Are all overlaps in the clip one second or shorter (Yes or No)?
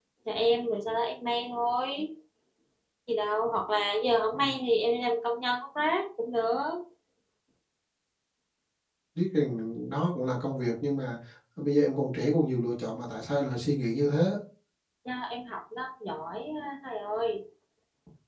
Yes